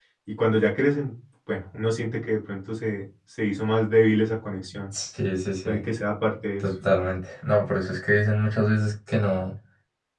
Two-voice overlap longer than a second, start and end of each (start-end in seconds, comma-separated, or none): none